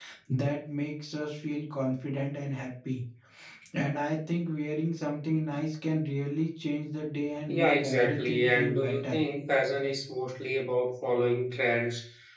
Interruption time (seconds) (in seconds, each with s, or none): 7.5 s